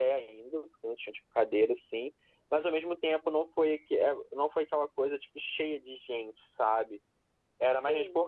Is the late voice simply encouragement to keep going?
Yes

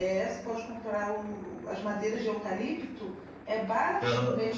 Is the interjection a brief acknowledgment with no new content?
Yes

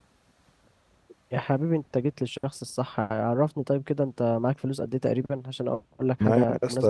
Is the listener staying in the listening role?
No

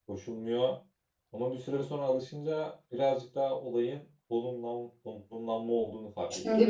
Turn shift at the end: Yes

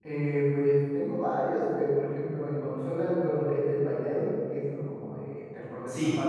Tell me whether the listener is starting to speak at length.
No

